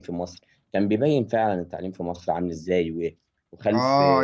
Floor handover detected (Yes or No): Yes